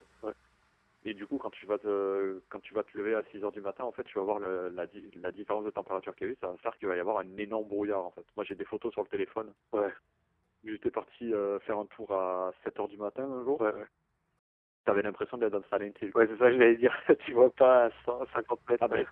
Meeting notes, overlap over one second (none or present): none